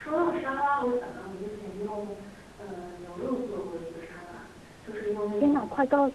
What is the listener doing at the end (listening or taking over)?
taking over